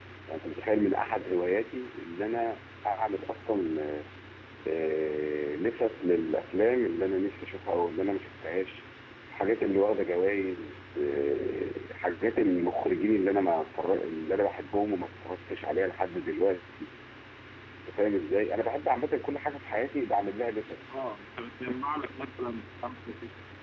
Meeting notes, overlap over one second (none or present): none